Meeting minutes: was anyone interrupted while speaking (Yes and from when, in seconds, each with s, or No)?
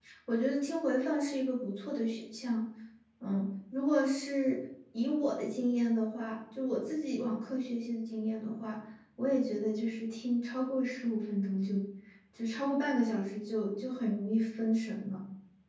No